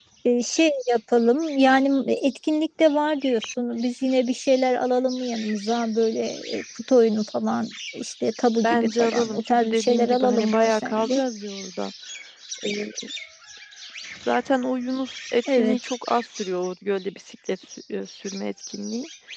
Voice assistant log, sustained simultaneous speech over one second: present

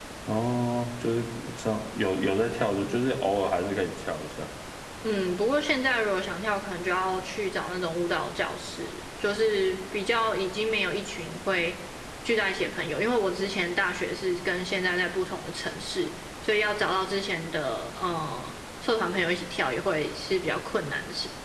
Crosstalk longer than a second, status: none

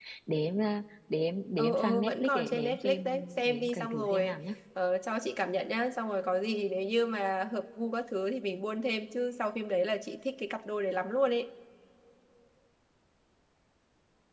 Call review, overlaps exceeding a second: present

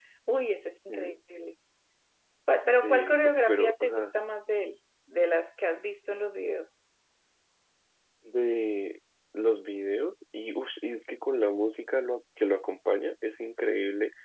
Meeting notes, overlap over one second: present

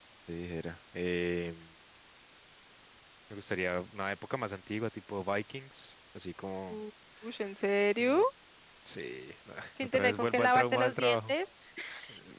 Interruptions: present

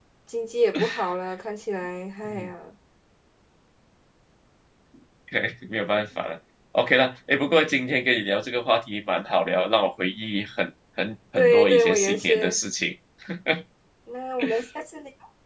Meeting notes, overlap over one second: present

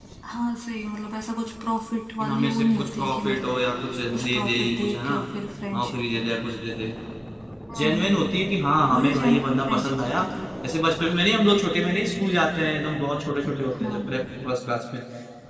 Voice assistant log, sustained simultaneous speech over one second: present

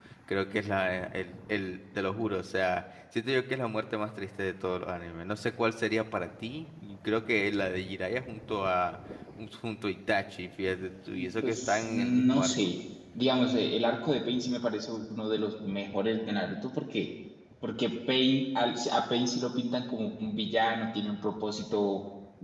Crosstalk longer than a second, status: present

